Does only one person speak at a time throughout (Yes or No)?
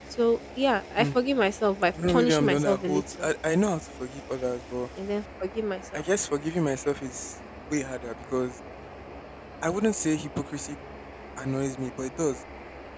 No